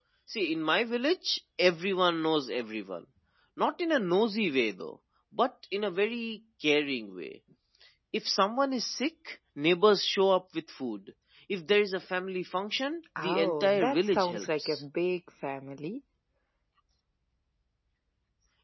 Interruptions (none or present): present